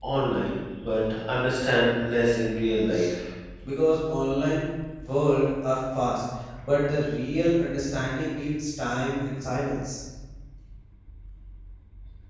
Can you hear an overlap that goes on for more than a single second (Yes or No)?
No